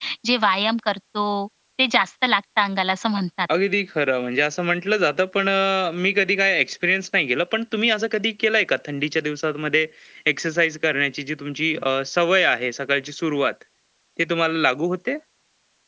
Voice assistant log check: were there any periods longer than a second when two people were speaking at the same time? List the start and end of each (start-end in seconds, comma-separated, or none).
none